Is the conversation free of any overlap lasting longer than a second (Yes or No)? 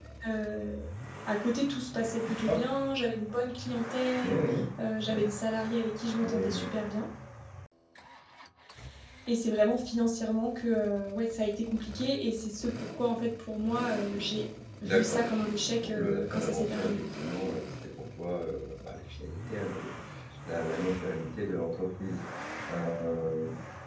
No